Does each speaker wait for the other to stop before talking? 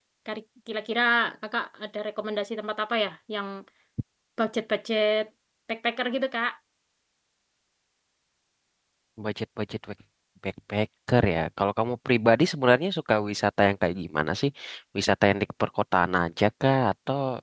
Yes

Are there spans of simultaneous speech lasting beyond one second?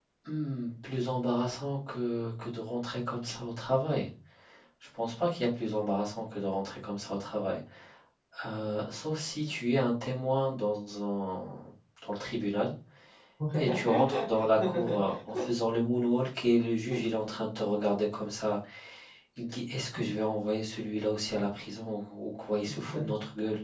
Yes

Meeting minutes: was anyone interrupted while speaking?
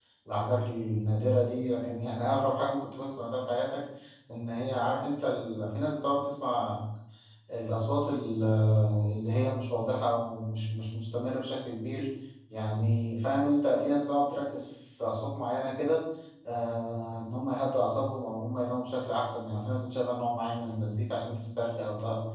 No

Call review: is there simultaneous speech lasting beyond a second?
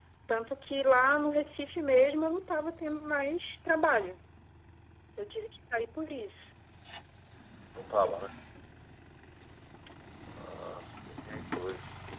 No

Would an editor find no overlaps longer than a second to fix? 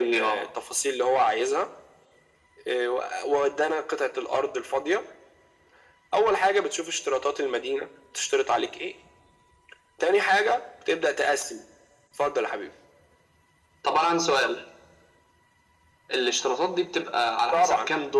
Yes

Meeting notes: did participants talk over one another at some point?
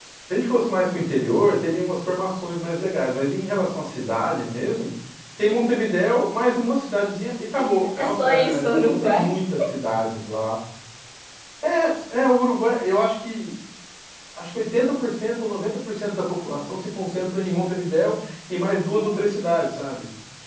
Yes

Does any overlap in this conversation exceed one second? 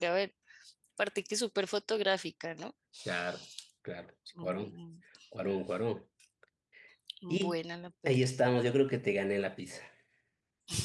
No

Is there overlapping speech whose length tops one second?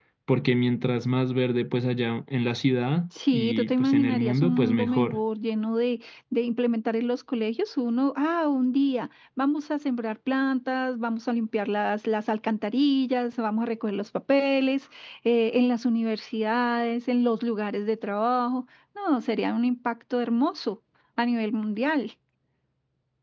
Yes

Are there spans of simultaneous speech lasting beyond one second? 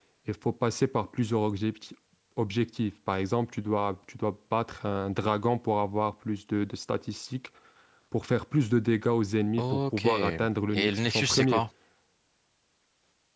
Yes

